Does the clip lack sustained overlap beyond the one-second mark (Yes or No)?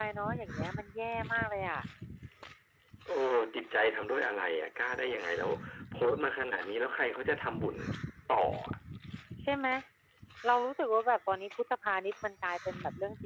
Yes